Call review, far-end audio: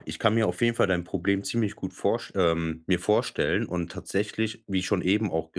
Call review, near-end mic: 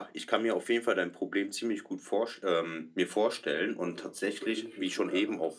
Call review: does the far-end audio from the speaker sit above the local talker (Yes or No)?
Yes